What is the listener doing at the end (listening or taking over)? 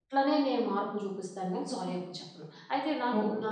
taking over